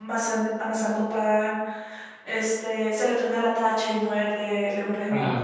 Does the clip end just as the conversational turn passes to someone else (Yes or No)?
No